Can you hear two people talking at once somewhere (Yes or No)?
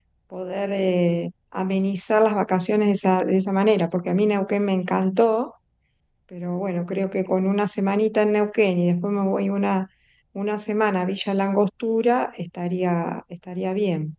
No